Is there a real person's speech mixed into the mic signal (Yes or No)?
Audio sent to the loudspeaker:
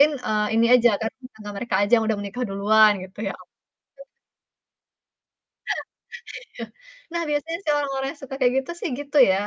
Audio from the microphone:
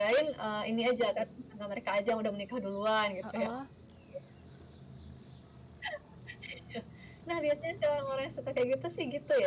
Yes